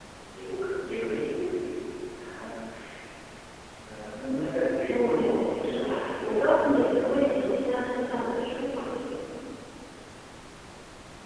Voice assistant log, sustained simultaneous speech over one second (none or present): present